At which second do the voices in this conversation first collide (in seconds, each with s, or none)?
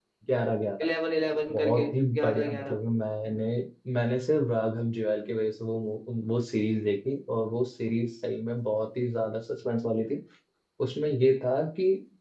1.5 s